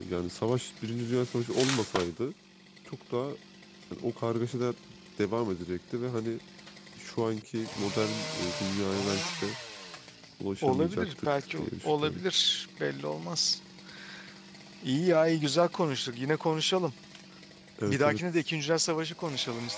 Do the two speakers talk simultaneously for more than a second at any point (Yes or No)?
Yes